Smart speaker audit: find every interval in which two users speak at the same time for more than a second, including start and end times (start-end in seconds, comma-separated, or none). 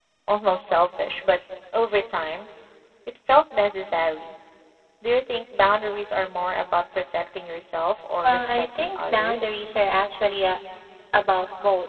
8.2-9.4